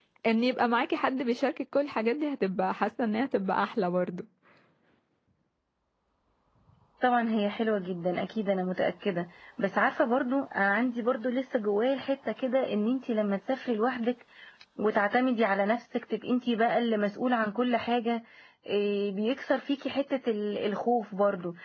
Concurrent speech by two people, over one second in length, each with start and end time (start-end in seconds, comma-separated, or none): none